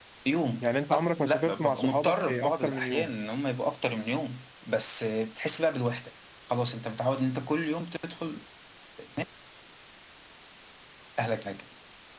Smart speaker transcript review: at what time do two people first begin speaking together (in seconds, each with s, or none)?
0.6 s